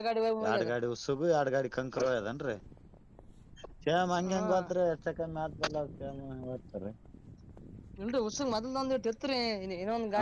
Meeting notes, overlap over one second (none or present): none